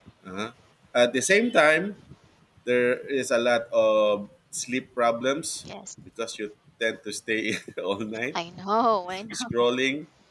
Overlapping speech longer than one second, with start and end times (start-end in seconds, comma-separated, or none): none